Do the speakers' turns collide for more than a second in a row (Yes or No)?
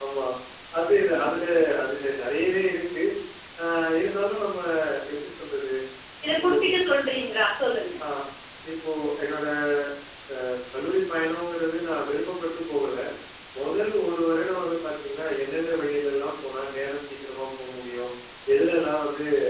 No